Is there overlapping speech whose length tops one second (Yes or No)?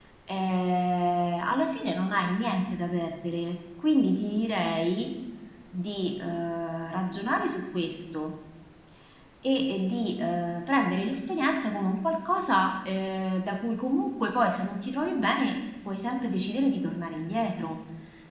No